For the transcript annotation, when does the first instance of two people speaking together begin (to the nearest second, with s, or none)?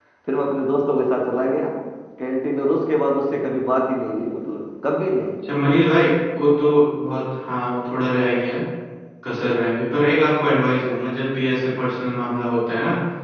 none